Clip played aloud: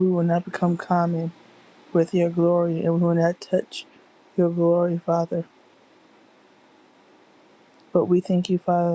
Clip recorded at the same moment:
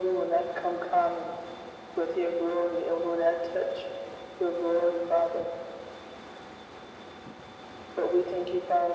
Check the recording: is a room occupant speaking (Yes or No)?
No